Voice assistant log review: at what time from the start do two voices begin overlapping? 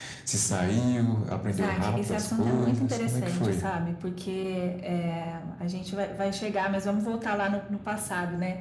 1.5 s

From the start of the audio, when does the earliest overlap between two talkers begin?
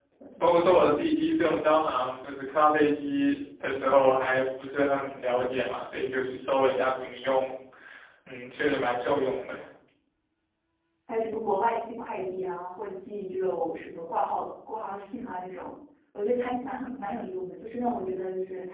none

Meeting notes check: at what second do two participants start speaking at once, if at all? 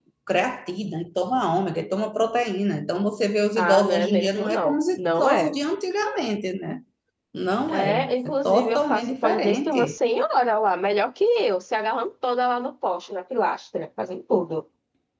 3.6 s

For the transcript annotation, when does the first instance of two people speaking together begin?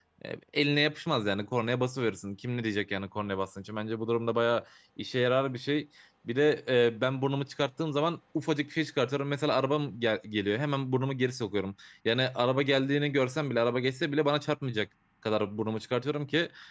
none

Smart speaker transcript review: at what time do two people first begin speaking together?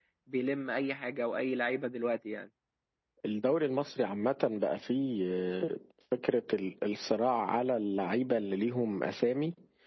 none

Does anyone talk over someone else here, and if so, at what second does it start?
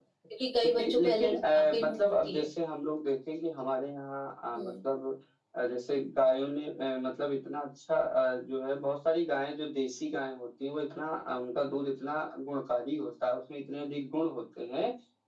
0.6 s

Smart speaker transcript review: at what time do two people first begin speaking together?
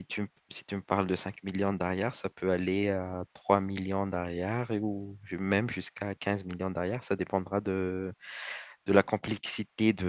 none

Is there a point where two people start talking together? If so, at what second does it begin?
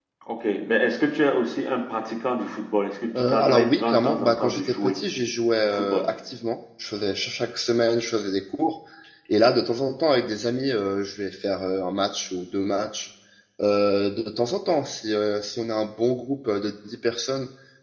3.2 s

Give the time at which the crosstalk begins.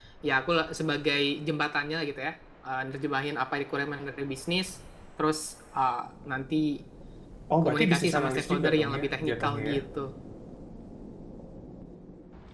7.6 s

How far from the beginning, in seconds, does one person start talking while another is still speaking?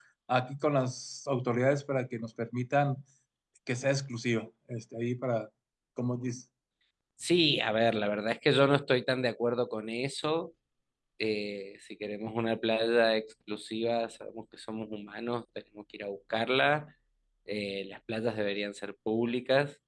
none

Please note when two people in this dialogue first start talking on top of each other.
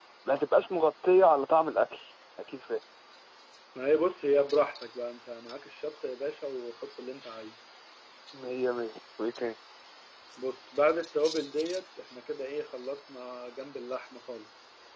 none

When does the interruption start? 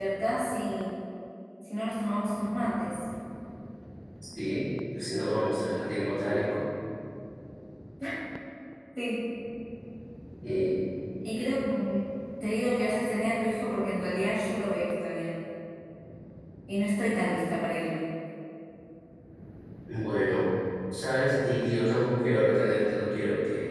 none

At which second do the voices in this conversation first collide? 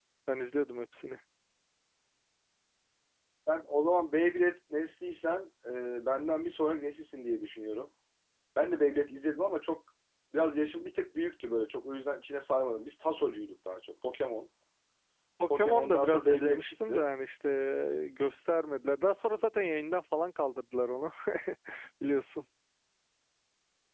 15.5 s

